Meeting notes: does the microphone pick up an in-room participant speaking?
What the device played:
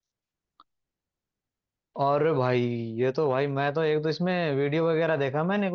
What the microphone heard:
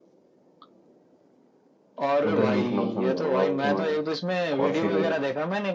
Yes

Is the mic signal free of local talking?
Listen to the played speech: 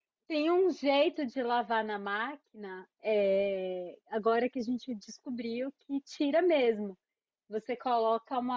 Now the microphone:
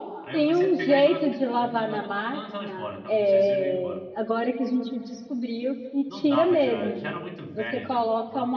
No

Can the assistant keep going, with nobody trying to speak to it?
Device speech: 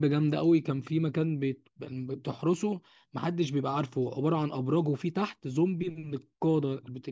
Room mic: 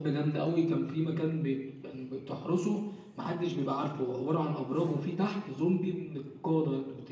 Yes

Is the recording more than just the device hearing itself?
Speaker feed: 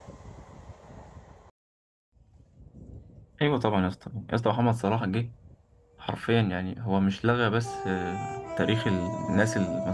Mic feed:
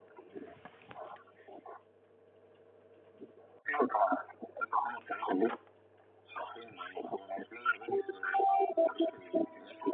No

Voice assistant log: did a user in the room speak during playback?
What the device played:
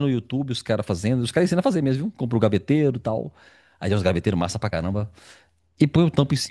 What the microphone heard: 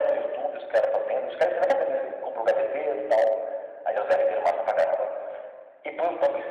No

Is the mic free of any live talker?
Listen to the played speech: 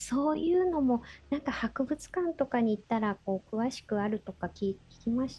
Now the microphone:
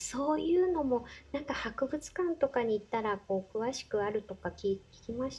Yes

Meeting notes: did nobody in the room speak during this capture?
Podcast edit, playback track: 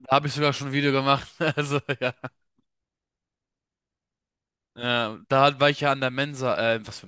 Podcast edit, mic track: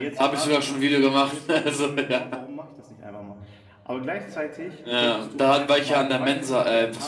No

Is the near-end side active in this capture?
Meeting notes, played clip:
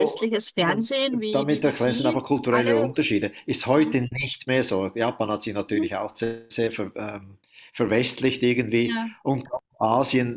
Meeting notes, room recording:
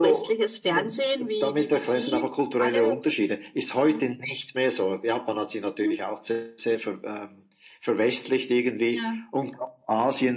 No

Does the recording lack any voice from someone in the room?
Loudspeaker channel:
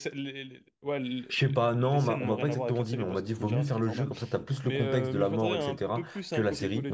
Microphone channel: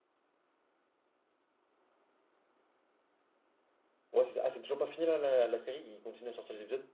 No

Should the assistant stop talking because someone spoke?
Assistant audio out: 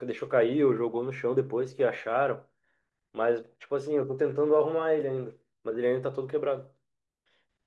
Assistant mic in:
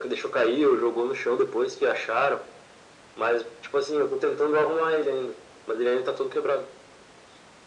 No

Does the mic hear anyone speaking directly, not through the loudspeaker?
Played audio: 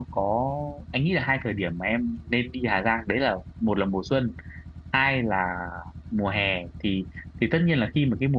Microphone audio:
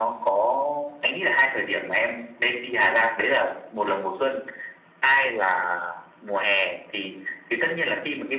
No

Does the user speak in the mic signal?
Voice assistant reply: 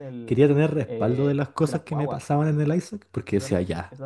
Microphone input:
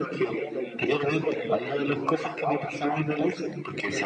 No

